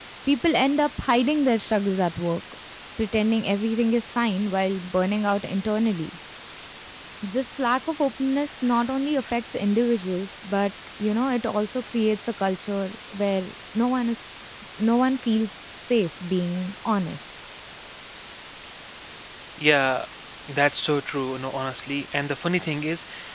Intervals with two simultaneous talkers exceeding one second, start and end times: none

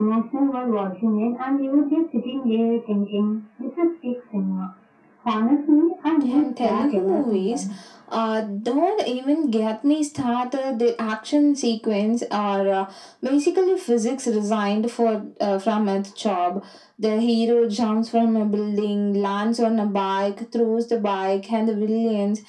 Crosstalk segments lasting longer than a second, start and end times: 6.3-7.6

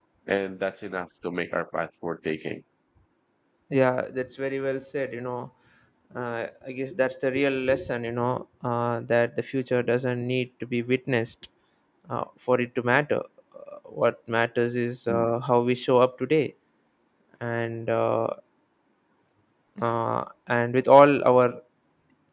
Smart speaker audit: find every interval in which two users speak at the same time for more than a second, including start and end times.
none

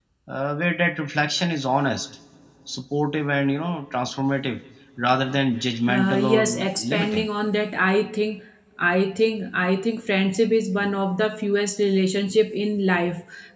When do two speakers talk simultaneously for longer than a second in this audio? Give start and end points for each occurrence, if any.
5.9-7.2

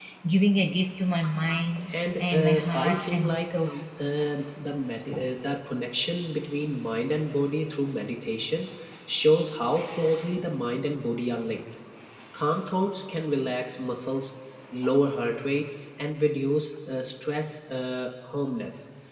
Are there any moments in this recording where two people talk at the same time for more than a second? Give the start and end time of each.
2.2-3.5

